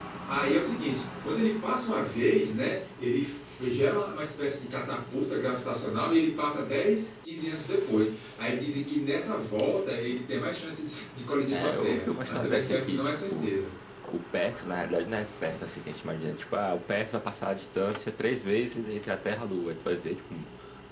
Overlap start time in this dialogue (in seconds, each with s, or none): 11.5 s